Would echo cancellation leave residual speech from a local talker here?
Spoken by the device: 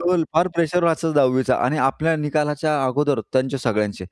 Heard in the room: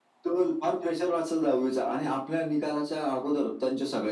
No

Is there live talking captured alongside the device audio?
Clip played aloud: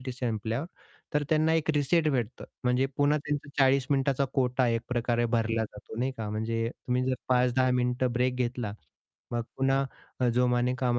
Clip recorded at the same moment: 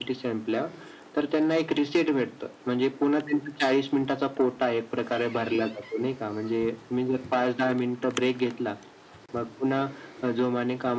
No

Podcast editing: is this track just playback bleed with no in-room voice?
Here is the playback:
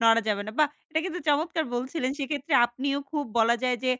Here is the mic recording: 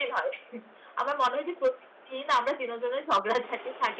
No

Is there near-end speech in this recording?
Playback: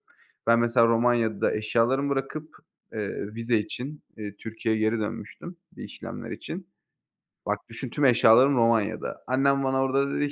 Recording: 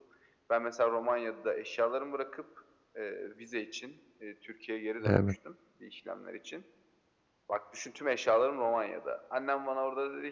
Yes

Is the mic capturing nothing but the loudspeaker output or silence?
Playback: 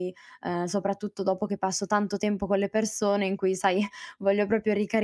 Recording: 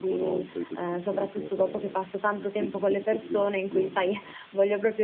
No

